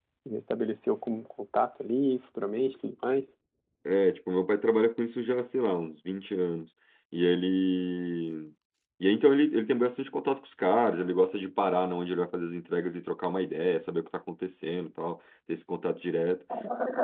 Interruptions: none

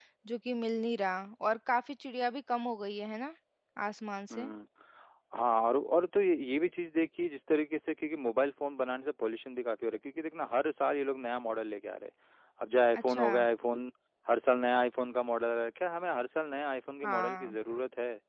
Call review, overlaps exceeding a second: none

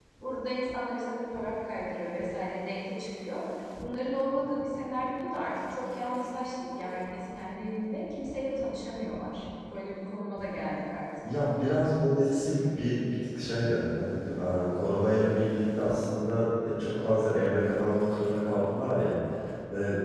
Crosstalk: none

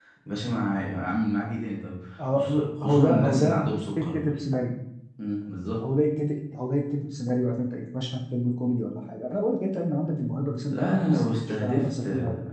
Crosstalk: present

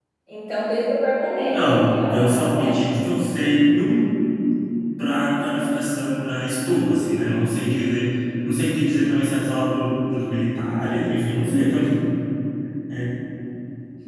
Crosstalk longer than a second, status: present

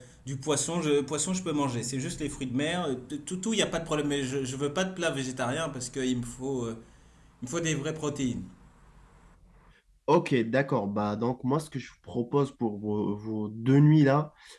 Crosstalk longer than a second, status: none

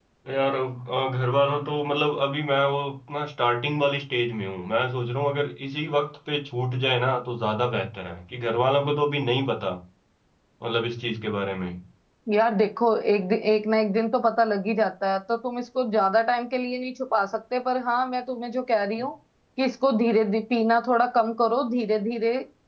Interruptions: none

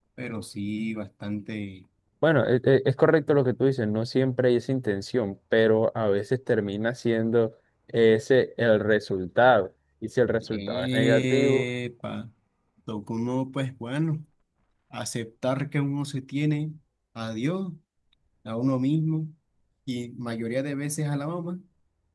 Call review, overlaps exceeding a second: present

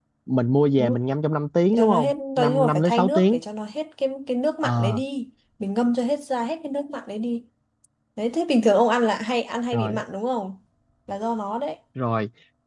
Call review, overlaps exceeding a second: present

